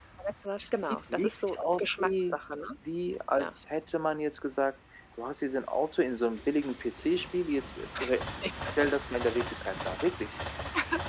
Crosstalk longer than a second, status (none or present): present